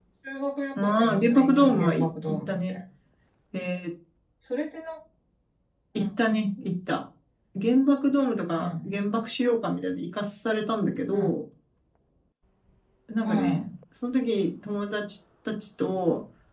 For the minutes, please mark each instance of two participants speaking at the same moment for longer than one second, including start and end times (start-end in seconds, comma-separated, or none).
0.8-2.8